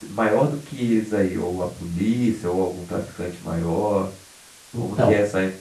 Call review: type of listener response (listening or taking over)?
listening